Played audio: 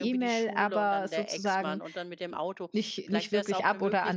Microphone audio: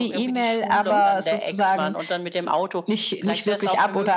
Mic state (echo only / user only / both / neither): both